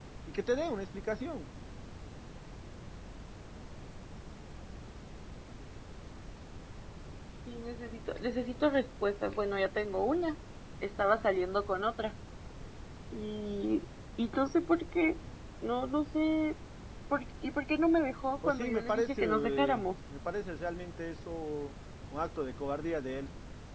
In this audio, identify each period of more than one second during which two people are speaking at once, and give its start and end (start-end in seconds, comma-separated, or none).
18.5-19.8